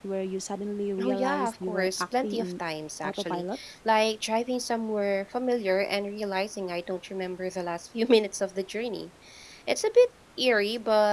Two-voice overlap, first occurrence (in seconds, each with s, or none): 1.0 s